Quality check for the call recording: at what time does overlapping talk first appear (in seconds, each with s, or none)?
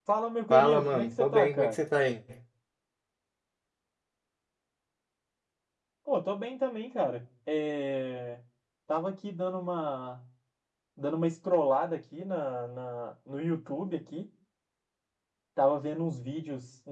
0.5 s